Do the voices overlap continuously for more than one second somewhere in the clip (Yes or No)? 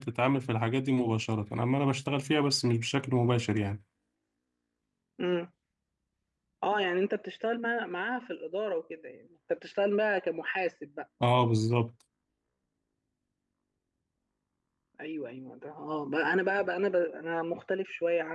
No